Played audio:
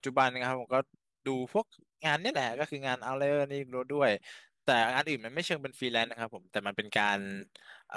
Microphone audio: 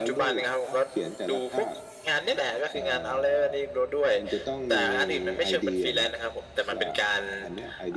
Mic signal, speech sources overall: both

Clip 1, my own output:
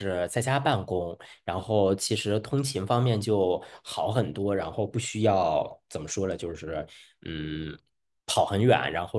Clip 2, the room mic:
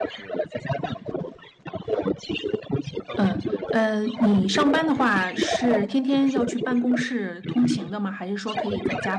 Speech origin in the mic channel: both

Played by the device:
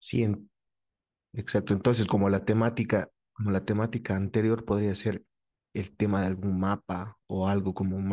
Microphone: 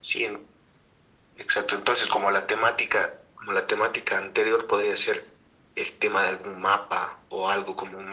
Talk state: echo only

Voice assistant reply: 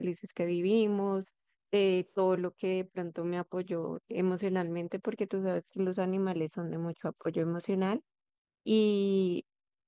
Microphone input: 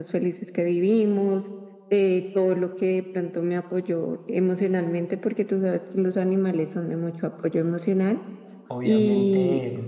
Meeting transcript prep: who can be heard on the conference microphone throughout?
both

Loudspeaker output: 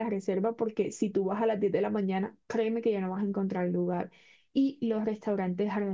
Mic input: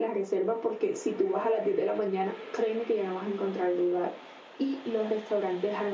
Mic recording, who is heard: echo only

